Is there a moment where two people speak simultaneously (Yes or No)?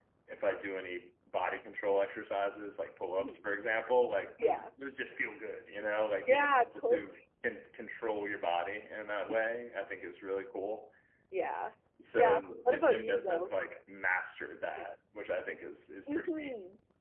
Yes